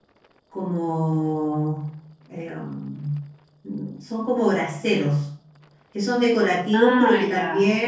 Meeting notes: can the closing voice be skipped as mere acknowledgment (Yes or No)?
Yes